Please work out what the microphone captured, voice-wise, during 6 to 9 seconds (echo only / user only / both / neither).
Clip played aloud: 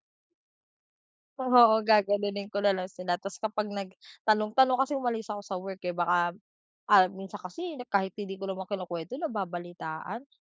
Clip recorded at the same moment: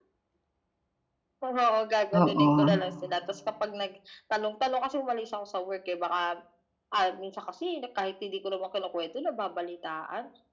echo only